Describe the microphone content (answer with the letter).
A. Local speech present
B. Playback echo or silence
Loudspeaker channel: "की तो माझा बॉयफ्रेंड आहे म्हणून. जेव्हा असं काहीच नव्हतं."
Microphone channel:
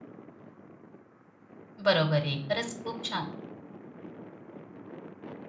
A